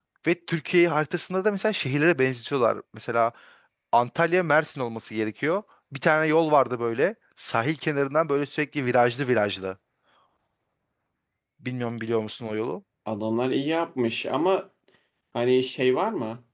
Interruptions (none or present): none